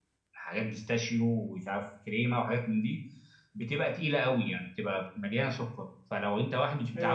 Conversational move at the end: listening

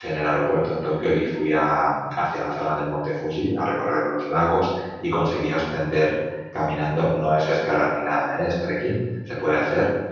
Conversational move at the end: listening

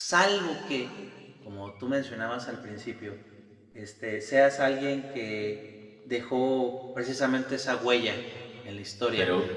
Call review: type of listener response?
taking over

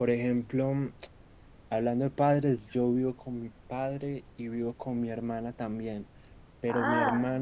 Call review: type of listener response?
listening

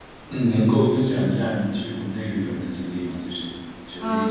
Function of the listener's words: taking over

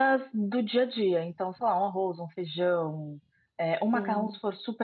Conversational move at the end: listening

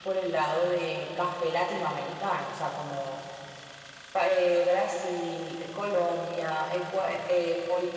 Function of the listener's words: listening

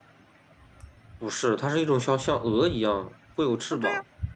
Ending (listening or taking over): taking over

